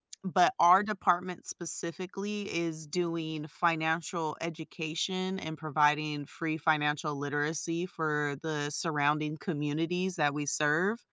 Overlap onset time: none

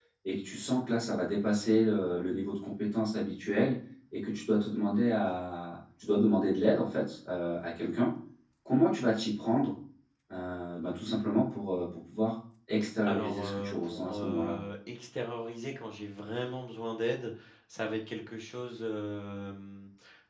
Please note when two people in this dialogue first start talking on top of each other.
13.1 s

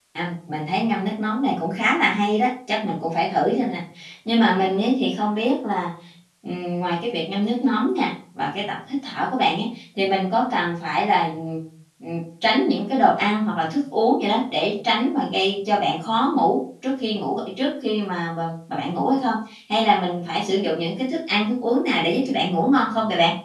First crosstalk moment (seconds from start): none

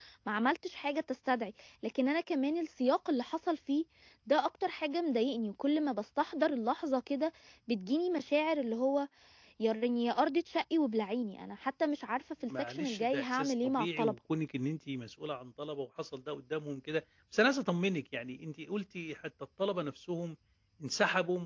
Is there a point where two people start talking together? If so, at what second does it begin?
12.5 s

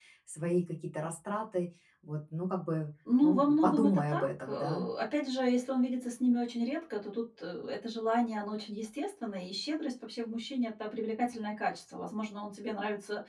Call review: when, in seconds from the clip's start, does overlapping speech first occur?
3.0 s

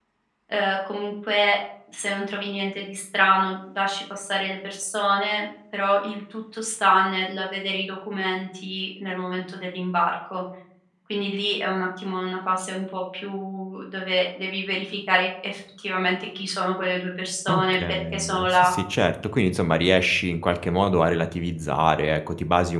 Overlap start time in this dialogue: 17.5 s

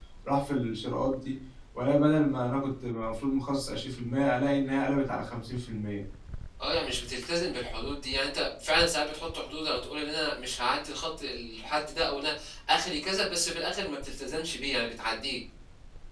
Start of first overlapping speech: none

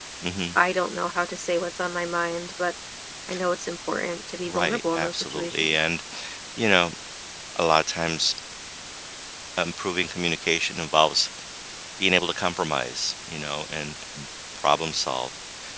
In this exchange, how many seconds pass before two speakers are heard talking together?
4.5 s

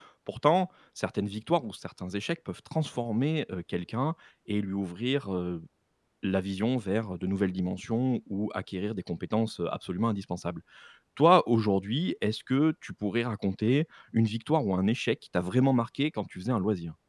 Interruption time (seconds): none

